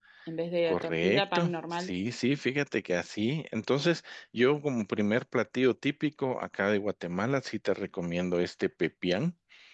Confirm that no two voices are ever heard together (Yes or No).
No